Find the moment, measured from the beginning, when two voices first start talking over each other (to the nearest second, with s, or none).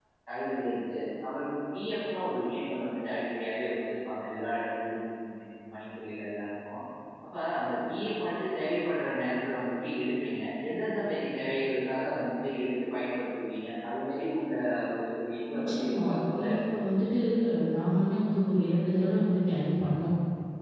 16 s